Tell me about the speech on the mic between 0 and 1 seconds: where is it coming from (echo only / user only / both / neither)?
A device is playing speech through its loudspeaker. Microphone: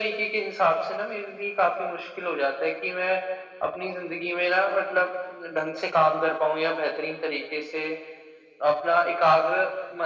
echo only